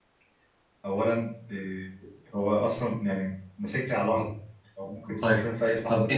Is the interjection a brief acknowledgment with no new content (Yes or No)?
No